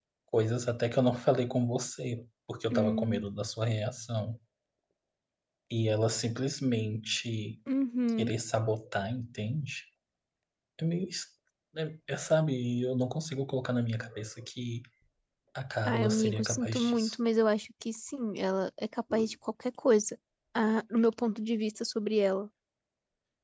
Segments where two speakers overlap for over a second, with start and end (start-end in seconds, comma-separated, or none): 15.8-17.2